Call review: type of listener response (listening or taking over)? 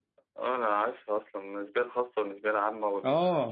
taking over